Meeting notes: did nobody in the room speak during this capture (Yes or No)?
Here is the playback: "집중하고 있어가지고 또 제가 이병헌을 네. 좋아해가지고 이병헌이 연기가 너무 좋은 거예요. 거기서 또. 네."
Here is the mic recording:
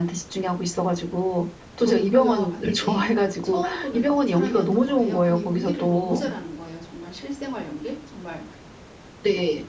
No